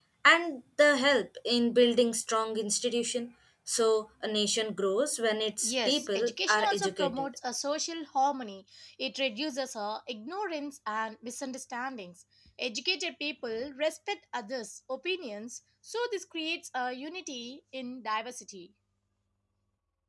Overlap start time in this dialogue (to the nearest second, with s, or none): 6 s